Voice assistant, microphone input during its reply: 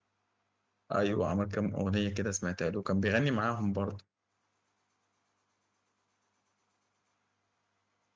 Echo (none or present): none